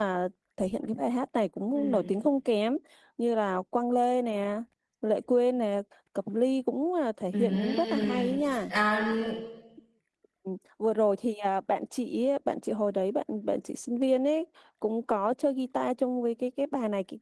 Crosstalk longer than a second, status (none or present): present